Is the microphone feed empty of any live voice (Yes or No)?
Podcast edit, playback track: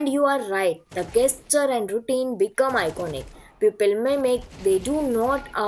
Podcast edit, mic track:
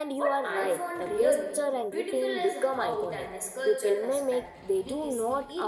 No